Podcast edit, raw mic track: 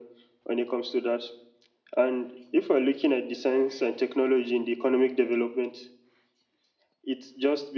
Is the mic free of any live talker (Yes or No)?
Yes